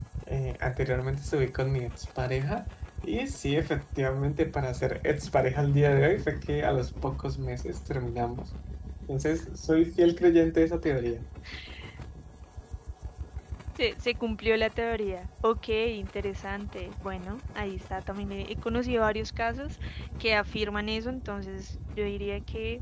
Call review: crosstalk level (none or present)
none